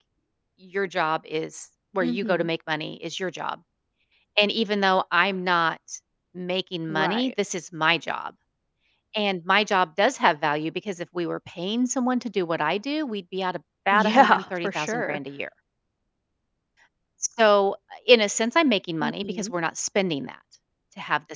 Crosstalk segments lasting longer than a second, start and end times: 13.9-15.2

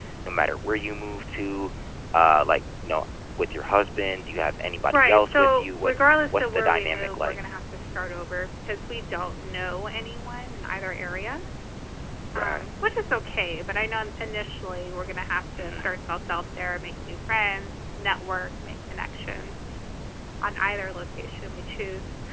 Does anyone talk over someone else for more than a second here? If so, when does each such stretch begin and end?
4.9-7.4

